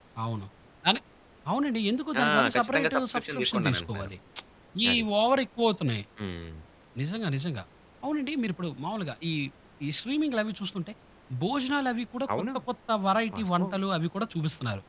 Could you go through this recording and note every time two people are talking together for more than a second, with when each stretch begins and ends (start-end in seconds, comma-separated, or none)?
2.2-4.1